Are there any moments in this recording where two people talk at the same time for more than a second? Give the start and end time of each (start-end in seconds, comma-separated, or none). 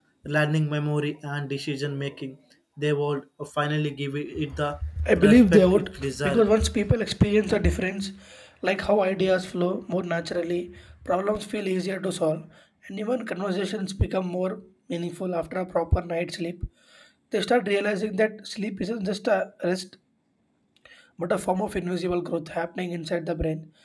5.2-6.5